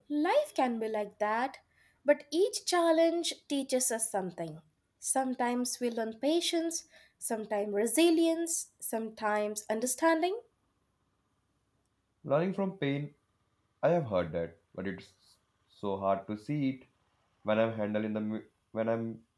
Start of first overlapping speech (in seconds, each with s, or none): none